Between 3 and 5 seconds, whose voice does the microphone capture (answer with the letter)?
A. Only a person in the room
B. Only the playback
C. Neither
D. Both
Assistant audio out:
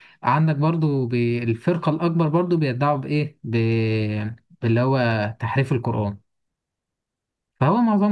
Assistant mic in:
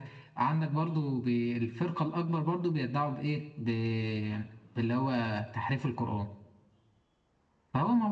B